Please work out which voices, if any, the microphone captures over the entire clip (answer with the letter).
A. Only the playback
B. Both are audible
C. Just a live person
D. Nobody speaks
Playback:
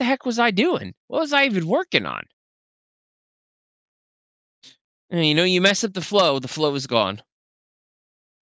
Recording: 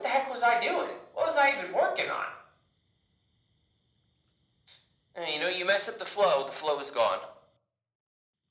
A